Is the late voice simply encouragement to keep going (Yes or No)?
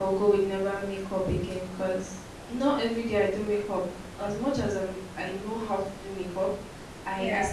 Yes